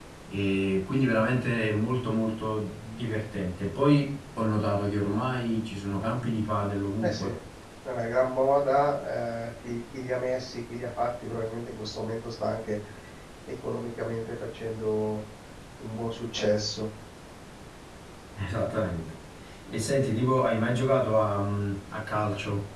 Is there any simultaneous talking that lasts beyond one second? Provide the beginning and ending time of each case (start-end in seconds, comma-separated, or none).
none